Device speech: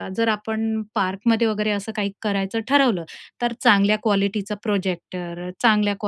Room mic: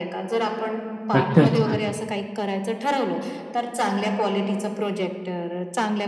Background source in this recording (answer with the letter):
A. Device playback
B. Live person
A